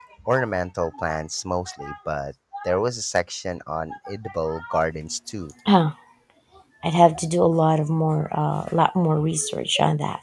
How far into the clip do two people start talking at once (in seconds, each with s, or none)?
none